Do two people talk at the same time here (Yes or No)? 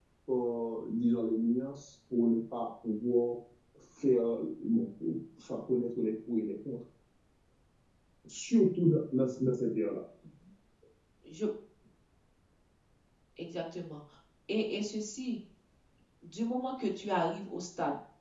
No